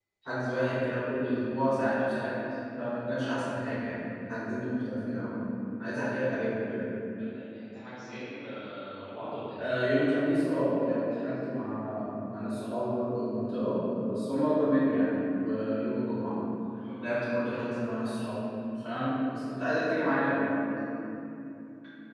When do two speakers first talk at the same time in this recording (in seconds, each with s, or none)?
none